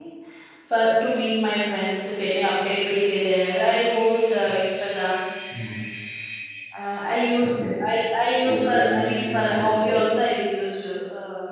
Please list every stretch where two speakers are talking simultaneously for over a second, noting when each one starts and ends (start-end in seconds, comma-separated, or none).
8.4-9.9